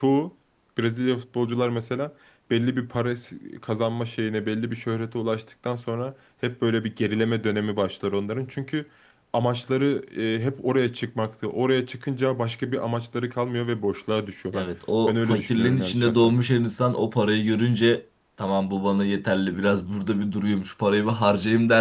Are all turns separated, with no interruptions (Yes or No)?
No